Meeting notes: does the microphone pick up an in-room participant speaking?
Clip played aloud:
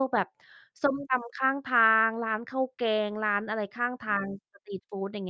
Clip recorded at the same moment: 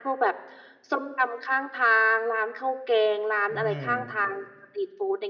Yes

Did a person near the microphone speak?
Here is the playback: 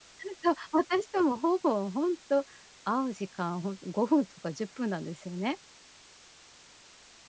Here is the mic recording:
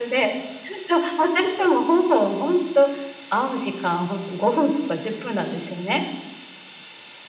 No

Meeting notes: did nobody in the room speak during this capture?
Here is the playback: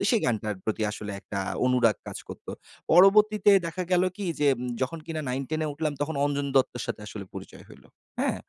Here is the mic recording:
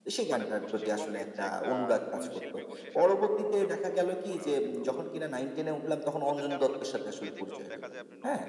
No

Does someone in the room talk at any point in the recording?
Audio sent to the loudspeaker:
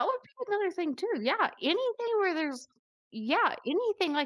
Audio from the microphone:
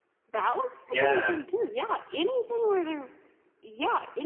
Yes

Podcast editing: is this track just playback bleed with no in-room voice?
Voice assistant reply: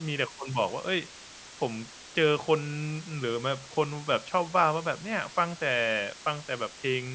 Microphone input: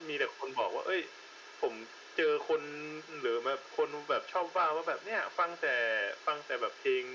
Yes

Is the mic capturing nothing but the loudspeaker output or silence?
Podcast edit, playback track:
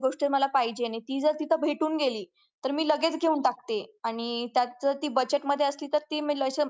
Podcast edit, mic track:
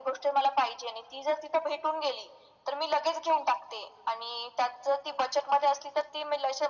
Yes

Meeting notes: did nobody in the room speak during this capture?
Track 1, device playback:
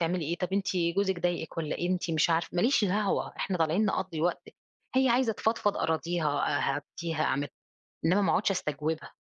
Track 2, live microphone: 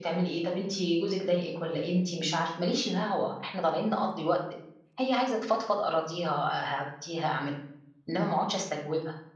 Yes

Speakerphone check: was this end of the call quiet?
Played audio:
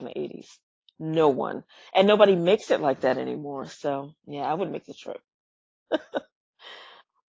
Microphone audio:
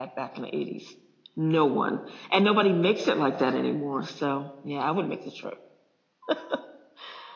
Yes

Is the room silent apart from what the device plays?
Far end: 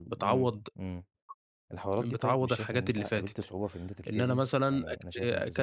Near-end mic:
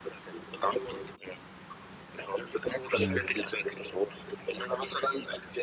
No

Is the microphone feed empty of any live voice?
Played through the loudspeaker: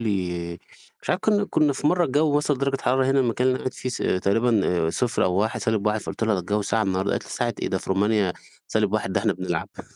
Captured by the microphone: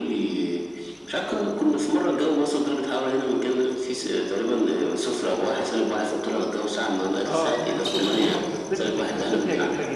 No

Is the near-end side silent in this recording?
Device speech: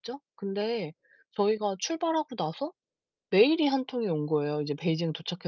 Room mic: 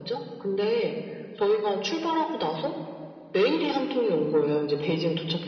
Yes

